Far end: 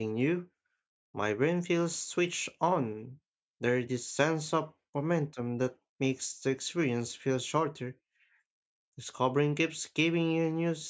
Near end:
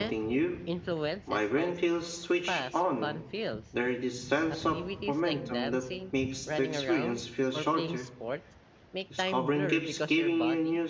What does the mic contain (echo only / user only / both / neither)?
both